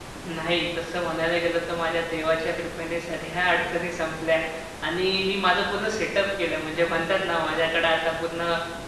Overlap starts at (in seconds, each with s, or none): none